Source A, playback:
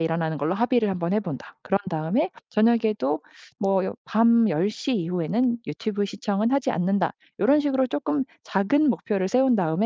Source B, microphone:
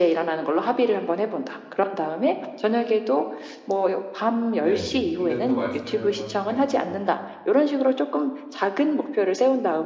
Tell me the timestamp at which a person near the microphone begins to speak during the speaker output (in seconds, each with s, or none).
4.6 s